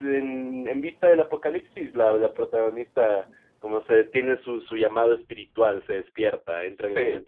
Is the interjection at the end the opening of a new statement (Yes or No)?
No